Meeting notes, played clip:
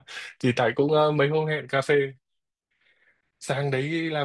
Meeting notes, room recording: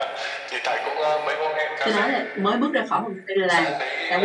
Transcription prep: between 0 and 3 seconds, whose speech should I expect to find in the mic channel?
both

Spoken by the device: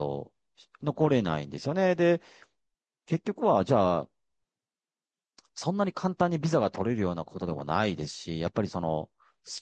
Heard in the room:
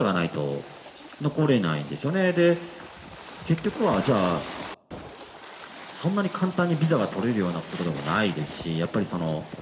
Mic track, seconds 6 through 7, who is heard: echo only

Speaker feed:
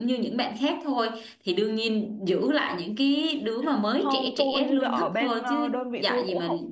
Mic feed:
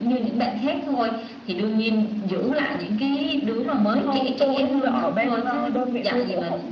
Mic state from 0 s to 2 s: echo only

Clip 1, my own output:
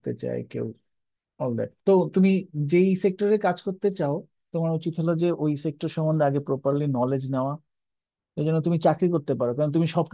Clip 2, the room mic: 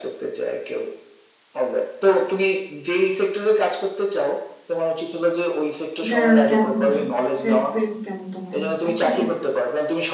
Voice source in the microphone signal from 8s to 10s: both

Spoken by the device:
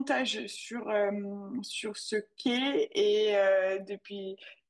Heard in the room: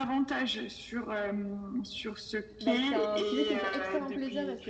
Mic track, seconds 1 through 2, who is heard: echo only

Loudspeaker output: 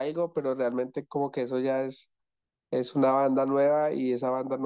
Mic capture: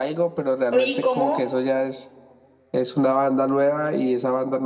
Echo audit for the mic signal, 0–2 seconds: both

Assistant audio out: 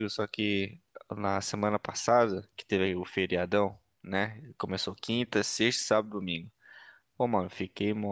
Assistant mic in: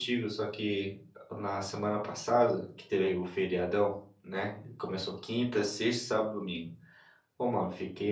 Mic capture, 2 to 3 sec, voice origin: echo only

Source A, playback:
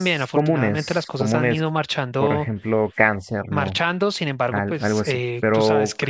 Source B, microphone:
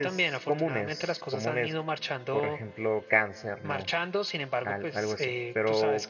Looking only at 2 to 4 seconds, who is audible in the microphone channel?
echo only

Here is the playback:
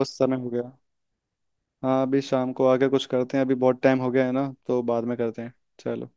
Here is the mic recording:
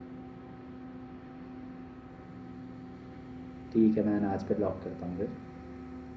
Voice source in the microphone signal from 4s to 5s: user only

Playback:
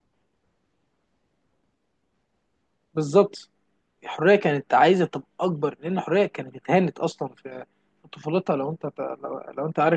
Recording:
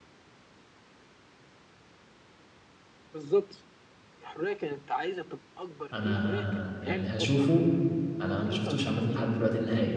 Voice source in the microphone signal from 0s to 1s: neither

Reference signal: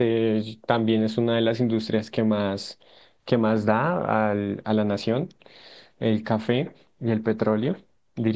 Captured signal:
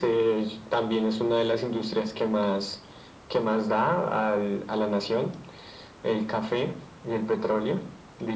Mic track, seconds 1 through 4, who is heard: echo only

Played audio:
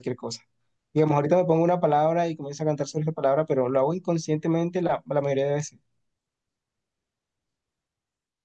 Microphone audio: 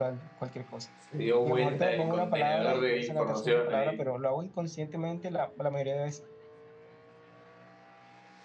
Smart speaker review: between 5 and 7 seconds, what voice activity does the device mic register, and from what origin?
echo only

